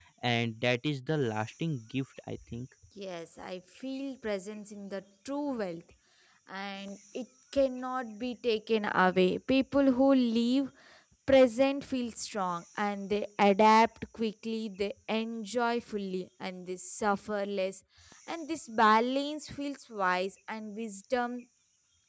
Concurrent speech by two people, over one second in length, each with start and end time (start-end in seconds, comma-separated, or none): none